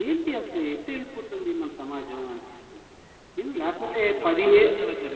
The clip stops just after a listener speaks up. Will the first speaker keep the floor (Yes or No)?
No